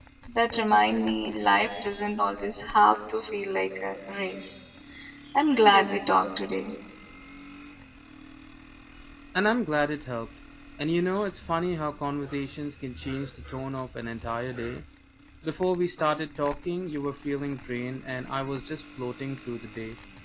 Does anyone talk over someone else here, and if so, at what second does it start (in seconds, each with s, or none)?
none